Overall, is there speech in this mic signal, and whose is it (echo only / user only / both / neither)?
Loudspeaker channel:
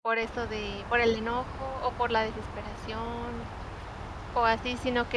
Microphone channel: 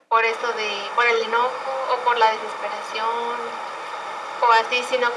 echo only